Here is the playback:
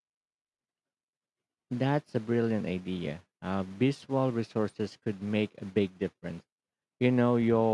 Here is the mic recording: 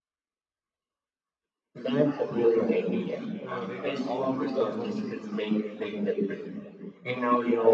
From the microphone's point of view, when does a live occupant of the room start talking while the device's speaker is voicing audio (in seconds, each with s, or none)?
3.4 s